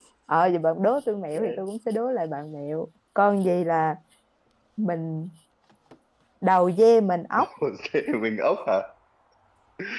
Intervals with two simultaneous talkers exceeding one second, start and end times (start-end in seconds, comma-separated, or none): none